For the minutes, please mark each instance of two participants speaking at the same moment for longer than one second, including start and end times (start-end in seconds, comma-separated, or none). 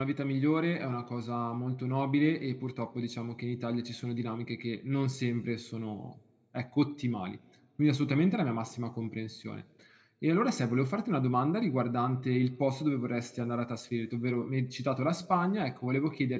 none